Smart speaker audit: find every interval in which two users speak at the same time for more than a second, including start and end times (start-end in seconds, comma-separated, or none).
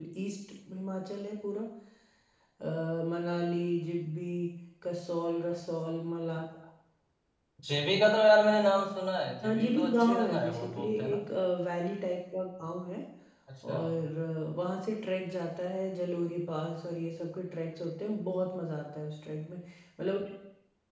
9.4-11.2